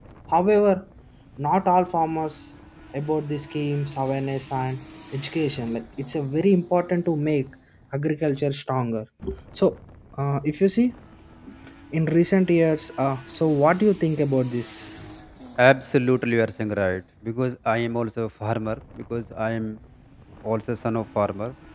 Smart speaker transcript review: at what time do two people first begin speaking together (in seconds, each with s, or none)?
none